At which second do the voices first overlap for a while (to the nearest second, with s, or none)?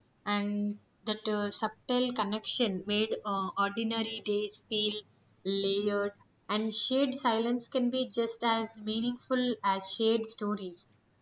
none